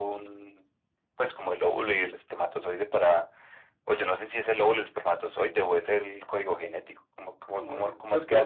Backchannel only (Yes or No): No